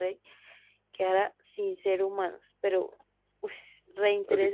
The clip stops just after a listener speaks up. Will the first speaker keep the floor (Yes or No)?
No